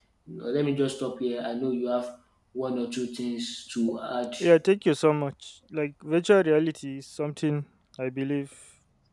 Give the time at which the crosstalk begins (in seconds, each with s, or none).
none